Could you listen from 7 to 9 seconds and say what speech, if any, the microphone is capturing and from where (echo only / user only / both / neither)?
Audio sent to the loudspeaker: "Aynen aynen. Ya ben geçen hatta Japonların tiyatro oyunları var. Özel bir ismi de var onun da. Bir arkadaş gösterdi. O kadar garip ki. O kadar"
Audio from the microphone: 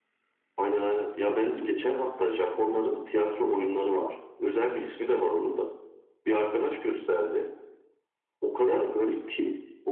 echo only